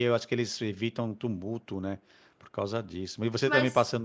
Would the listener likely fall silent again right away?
Yes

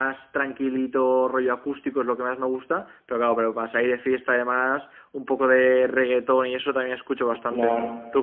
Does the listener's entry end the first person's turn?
Yes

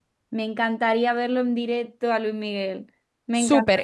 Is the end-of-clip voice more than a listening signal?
Yes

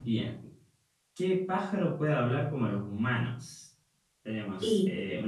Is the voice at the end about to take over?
No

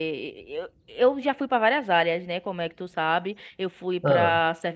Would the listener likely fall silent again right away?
Yes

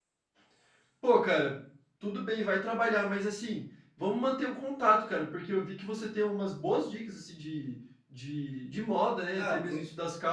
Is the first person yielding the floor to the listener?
No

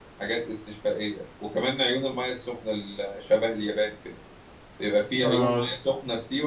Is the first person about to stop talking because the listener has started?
No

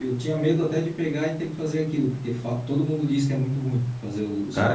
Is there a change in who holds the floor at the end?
Yes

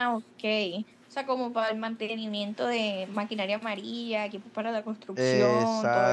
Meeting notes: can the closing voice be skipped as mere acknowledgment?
No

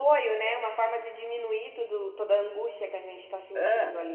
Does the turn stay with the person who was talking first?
No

